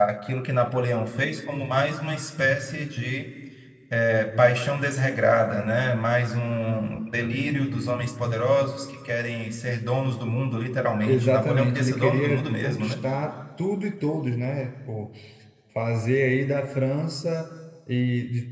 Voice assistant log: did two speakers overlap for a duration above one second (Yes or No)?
Yes